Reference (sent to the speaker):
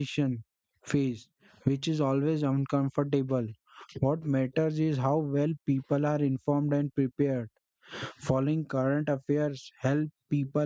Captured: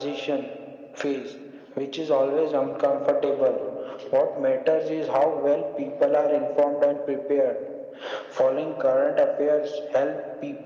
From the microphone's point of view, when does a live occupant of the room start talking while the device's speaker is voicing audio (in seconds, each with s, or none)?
none